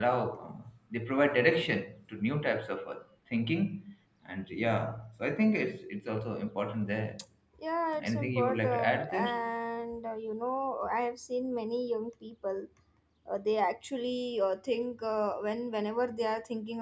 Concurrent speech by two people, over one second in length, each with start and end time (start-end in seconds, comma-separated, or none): 8.0-9.3